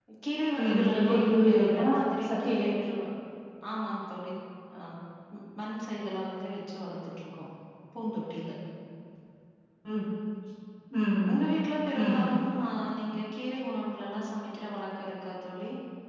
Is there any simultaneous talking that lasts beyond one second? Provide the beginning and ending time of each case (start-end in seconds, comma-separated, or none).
0.6-1.8